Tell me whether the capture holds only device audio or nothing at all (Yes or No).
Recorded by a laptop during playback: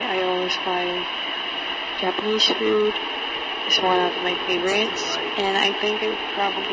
No